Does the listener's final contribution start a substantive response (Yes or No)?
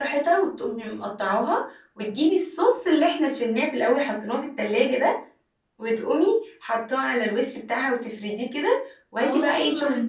Yes